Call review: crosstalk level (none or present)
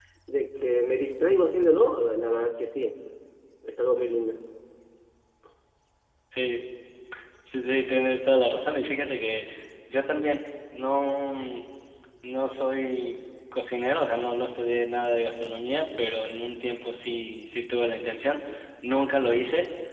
none